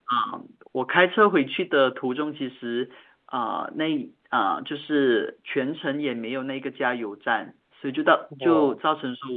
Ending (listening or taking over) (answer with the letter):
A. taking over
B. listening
B